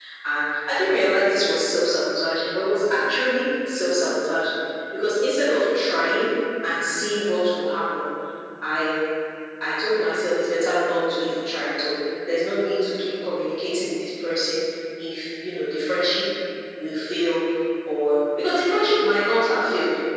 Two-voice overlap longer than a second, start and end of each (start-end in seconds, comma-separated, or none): none